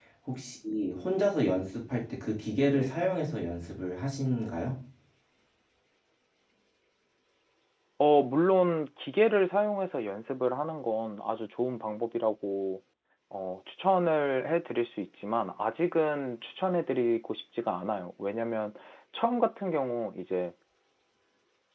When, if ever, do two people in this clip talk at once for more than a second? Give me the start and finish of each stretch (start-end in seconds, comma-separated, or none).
none